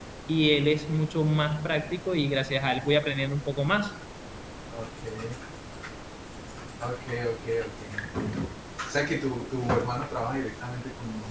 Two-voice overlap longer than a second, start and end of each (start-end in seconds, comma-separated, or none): none